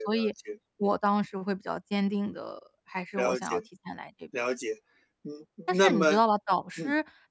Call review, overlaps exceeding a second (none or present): none